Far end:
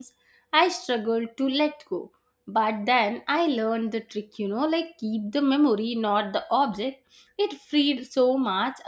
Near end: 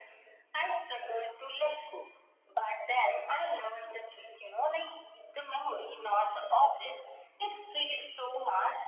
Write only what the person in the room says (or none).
none